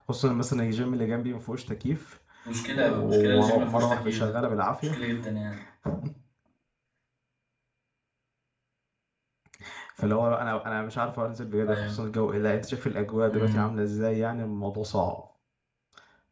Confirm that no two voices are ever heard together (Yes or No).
No